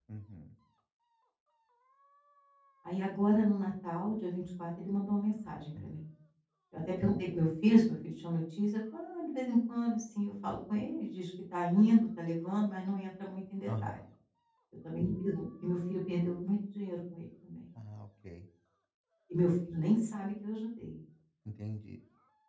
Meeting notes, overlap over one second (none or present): none